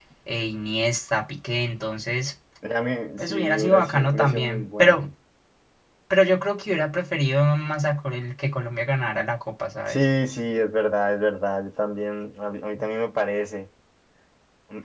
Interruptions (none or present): present